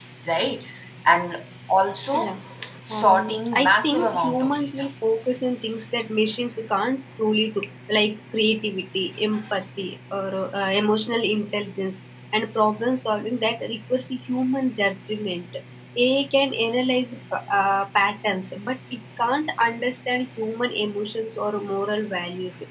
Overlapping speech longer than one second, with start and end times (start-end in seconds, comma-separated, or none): 3.0-4.9